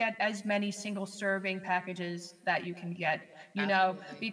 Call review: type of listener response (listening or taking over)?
listening